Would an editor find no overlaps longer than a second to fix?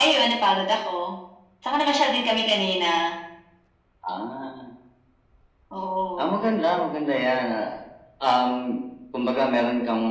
Yes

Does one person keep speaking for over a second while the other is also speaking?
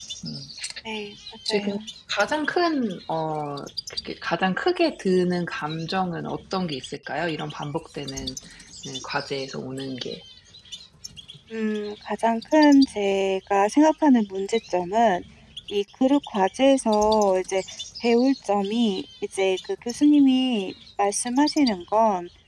No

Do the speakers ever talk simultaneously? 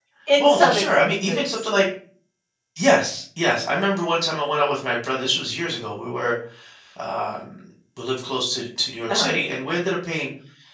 Yes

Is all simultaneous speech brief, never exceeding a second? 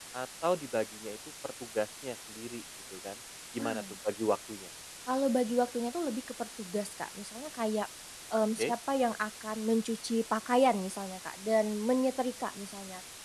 Yes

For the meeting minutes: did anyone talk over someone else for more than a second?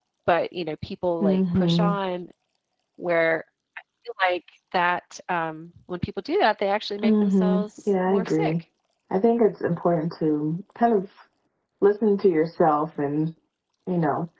Yes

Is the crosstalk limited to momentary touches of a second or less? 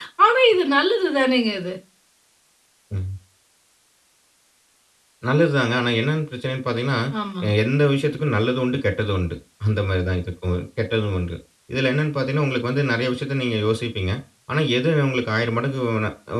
Yes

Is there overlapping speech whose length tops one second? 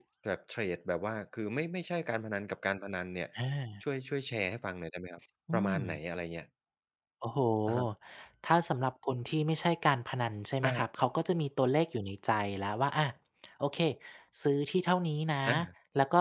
No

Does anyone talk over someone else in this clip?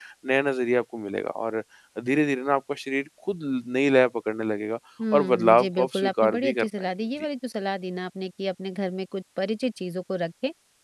Yes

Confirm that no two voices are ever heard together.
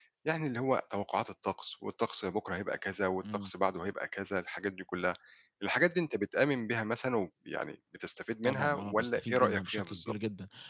No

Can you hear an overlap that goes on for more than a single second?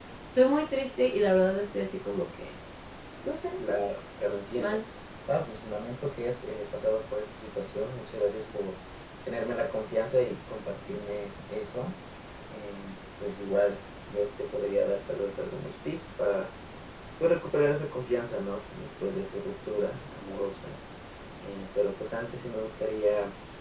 No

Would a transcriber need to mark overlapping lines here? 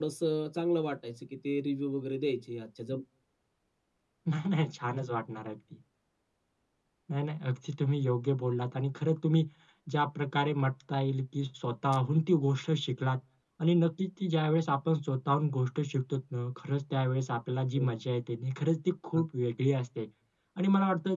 No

